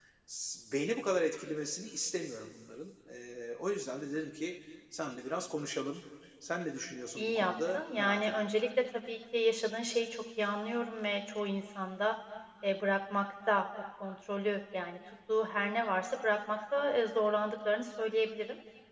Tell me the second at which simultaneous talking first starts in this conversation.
7.2 s

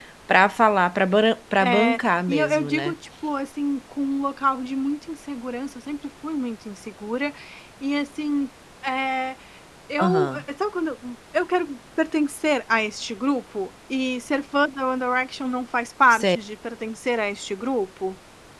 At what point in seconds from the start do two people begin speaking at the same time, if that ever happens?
1.6 s

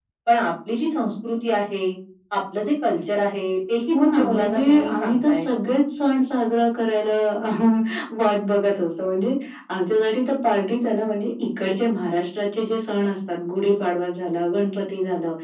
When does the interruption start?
3.9 s

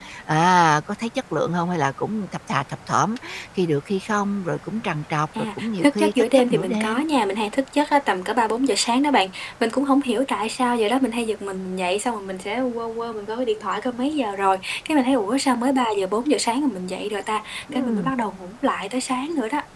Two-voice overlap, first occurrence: 5.6 s

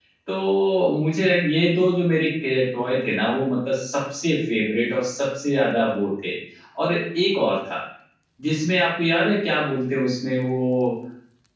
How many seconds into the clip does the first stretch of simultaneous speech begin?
none

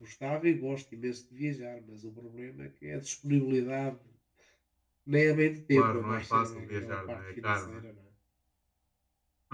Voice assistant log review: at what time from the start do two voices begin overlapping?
5.7 s

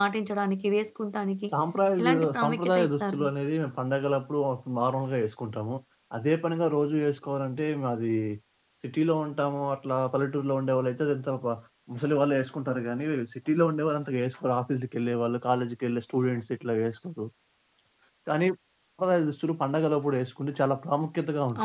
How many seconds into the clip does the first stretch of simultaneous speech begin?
2.0 s

